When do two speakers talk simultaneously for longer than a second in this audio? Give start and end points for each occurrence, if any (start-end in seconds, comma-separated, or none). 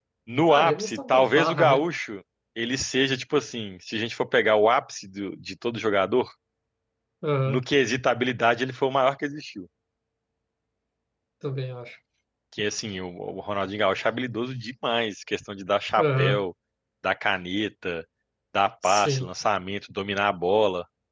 0.5-1.9